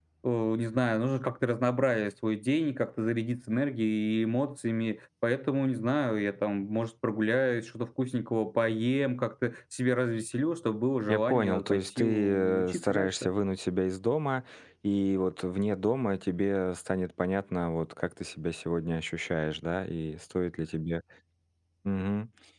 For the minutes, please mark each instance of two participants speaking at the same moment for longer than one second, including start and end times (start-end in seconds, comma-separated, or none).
11.1-13.3